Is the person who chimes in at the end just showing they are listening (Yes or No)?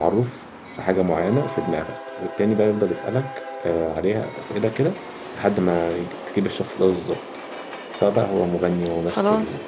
Yes